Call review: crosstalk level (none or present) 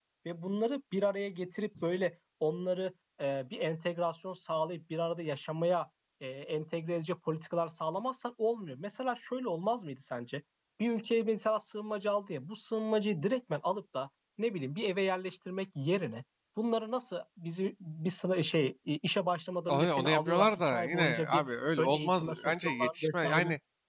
present